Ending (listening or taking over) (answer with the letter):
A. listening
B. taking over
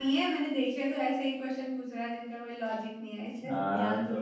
B